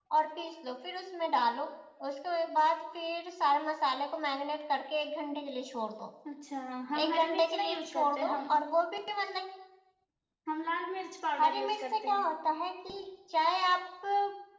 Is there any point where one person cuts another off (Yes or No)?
Yes